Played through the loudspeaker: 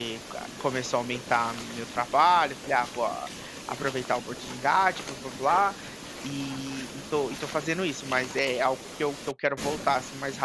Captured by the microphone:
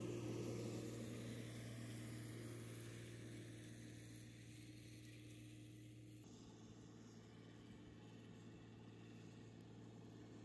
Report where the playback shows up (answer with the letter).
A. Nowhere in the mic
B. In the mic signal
A